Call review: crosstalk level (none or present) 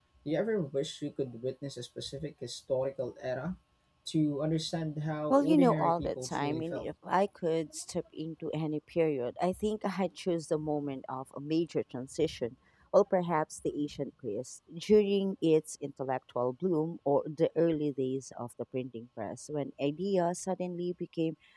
present